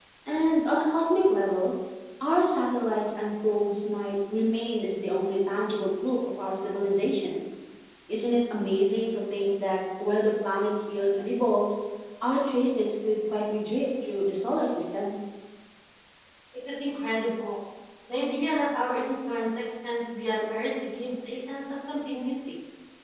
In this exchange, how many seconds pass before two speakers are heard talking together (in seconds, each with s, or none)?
none